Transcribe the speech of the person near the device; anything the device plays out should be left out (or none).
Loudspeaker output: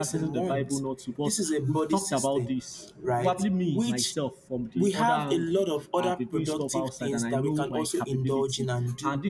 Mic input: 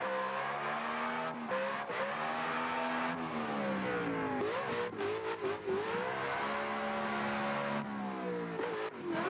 none